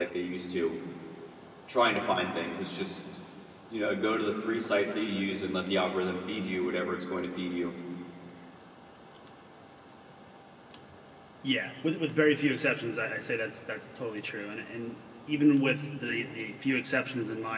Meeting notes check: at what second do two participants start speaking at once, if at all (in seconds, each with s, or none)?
none